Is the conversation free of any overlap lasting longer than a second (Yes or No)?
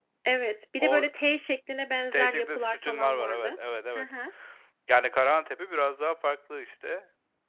No